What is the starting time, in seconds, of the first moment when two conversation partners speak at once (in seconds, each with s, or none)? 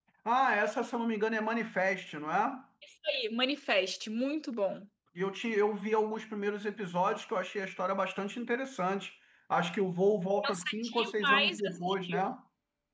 10.4 s